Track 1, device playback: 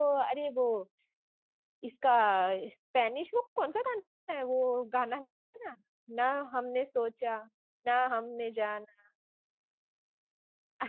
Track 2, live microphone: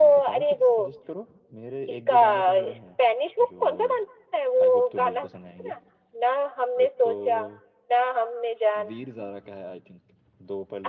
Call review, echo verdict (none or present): present